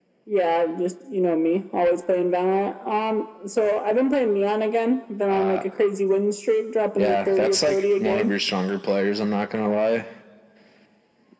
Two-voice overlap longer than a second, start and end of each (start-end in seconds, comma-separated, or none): 7.0-8.3